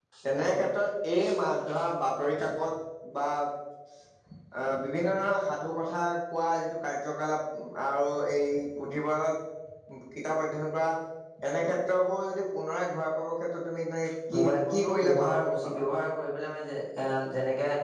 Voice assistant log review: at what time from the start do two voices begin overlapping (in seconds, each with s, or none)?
14.4 s